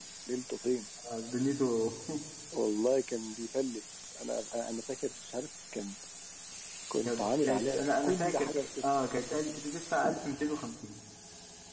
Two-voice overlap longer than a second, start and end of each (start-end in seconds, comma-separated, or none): 7.0-8.8